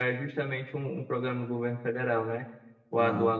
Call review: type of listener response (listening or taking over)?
listening